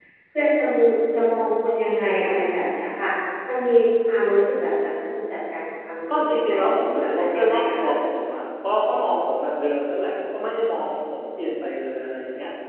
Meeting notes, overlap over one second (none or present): present